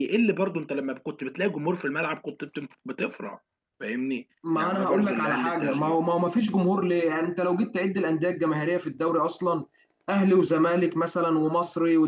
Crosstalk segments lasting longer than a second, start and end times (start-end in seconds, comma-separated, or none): 4.5-6.0